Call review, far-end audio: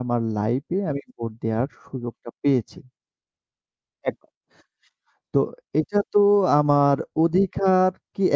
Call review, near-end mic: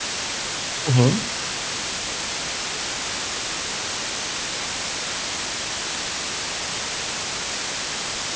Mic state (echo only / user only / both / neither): user only